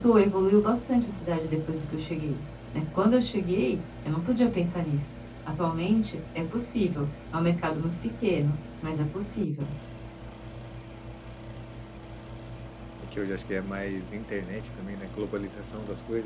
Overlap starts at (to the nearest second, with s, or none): none